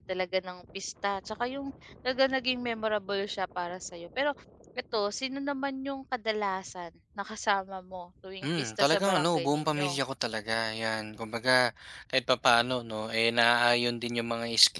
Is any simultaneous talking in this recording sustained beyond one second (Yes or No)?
Yes